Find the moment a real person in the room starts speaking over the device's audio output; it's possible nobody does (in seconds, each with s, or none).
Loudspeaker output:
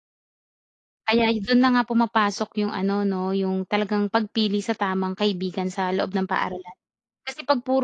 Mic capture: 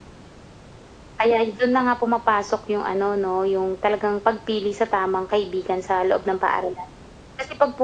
none